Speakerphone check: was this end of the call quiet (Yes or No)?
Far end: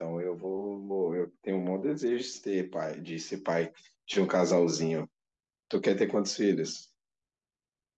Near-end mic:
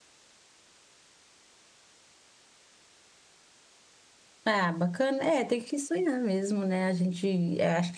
No